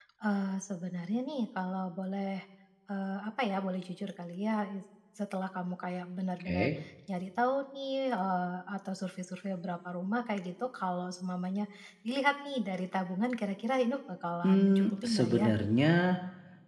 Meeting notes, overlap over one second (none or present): present